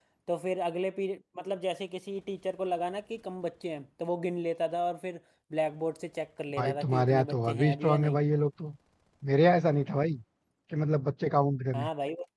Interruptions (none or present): present